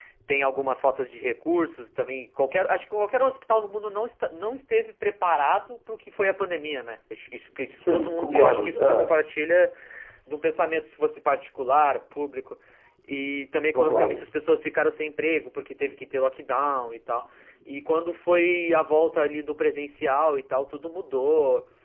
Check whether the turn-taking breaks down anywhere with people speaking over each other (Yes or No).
Yes